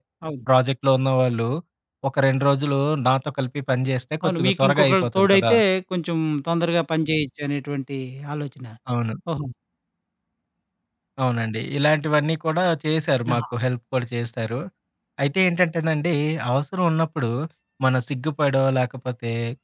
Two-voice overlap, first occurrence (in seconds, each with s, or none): 4.2 s